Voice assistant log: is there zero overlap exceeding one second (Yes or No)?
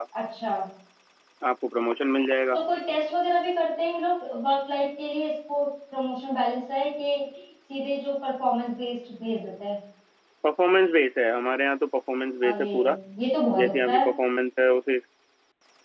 Yes